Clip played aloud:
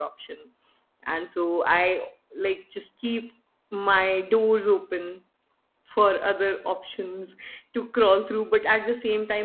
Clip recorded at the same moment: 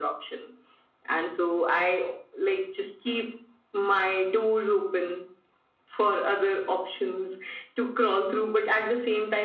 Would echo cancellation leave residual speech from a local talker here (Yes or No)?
No